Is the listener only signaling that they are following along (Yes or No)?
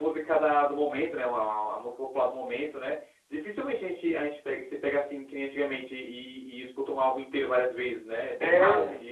No